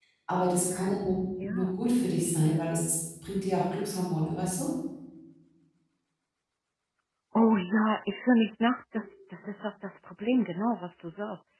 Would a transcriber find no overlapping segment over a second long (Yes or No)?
Yes